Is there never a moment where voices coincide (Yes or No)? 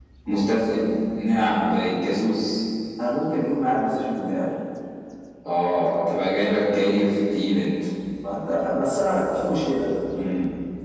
Yes